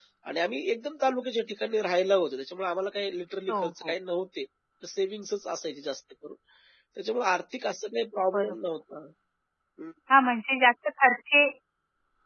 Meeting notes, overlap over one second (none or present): none